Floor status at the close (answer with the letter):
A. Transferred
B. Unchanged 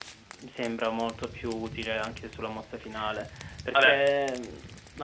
B